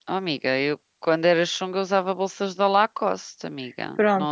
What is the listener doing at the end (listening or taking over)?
taking over